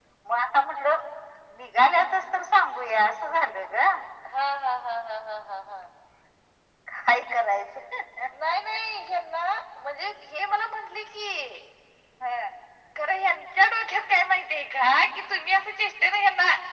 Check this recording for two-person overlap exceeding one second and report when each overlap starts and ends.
none

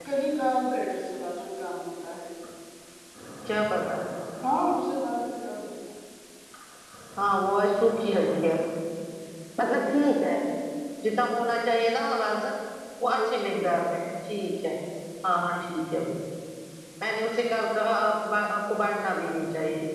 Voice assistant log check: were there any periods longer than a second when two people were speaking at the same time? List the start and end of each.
none

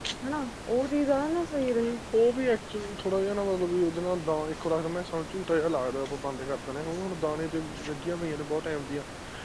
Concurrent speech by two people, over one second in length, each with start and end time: none

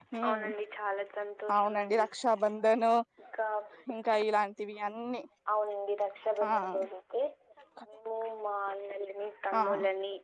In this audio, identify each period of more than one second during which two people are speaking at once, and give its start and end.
none

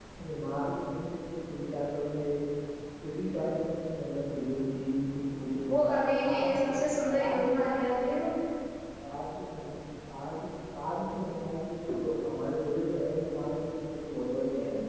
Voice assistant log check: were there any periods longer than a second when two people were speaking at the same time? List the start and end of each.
none

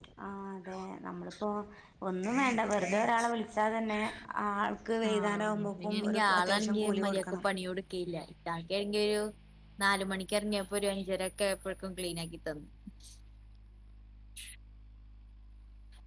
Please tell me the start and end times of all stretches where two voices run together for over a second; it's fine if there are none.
5.1-7.4

